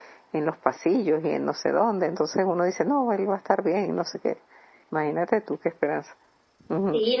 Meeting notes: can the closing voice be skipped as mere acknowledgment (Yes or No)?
No